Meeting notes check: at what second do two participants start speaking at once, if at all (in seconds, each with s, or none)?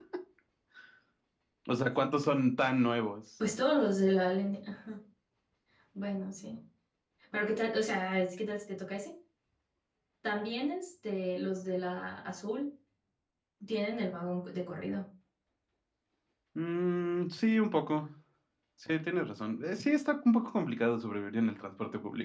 none